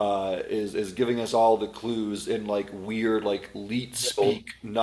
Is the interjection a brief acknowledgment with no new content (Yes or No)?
Yes